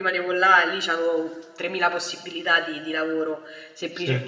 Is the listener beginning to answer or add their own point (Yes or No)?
No